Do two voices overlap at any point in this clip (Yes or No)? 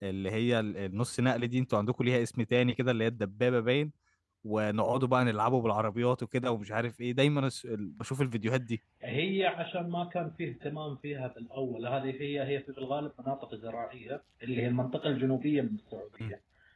No